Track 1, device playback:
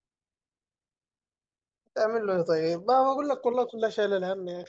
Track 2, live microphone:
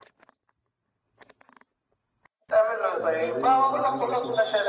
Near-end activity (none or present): present